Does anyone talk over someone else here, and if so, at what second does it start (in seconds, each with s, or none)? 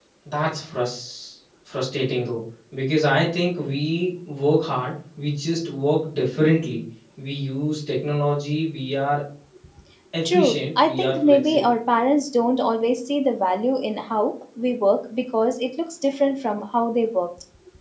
10.3 s